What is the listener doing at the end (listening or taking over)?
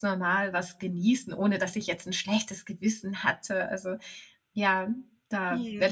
taking over